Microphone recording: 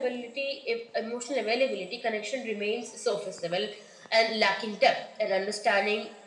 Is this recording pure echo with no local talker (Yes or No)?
Yes